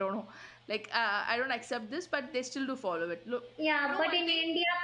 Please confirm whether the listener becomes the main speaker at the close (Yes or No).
Yes